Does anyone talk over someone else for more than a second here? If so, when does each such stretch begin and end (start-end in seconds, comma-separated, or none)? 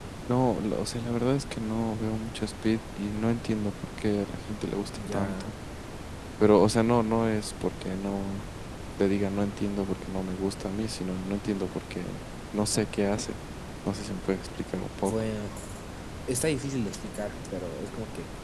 none